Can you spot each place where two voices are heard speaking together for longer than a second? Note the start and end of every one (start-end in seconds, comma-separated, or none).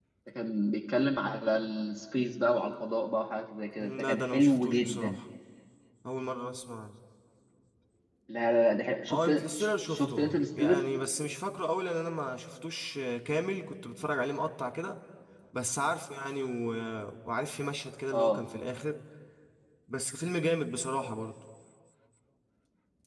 3.8-5.2, 9.1-10.9